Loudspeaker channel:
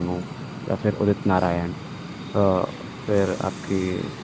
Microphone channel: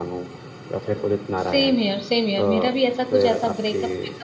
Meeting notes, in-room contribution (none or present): present